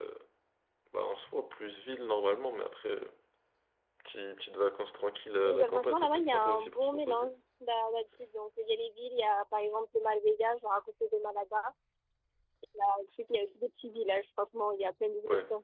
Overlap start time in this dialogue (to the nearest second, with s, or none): 5 s